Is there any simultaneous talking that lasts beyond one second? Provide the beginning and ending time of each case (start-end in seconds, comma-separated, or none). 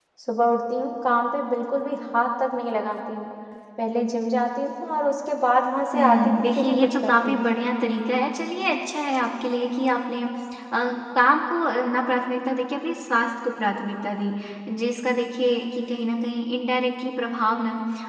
5.9-7.5